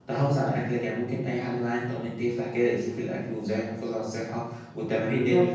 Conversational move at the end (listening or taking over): taking over